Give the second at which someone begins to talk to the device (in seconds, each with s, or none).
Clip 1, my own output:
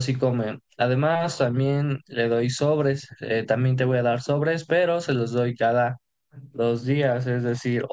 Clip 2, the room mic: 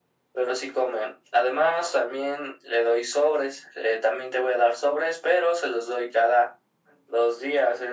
none